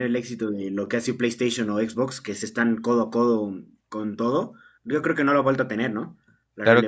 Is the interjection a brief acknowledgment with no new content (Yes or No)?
No